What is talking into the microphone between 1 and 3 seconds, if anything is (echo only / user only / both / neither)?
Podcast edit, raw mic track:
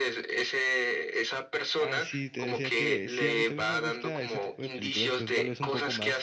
both